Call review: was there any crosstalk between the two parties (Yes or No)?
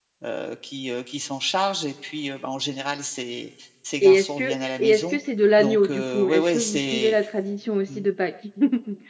Yes